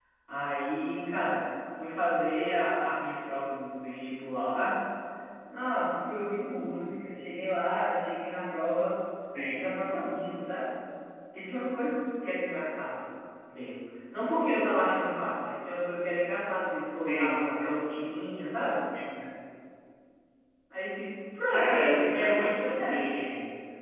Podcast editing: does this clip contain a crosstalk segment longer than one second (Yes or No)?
Yes